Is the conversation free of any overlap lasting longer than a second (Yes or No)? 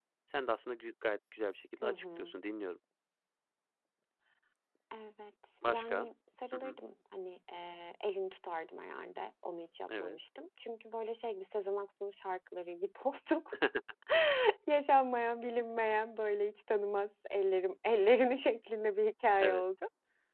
Yes